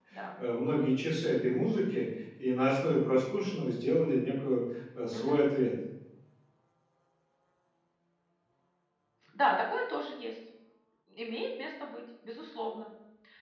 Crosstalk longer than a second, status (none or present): none